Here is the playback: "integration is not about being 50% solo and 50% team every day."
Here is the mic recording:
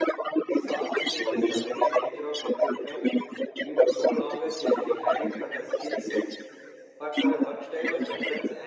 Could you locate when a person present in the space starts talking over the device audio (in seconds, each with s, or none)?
0.5 s